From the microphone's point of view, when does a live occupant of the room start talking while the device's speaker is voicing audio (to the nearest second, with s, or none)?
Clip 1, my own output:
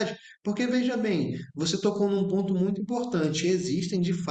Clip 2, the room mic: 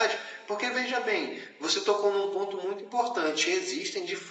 none